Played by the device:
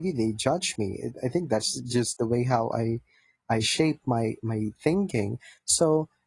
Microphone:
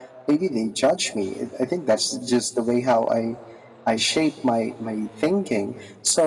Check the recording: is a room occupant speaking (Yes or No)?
No